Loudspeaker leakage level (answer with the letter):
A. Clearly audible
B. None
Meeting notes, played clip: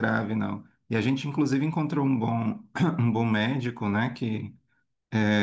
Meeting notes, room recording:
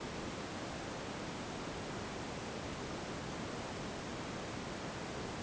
B